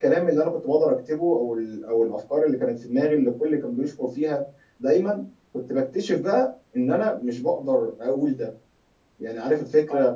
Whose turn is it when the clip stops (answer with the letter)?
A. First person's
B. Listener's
A